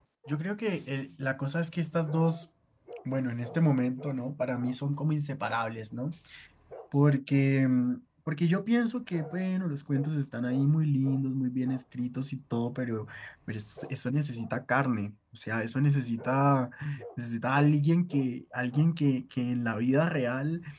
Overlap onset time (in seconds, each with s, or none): none